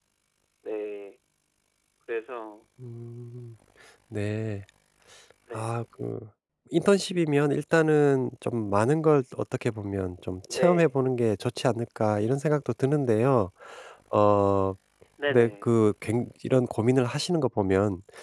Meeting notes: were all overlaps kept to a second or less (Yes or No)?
Yes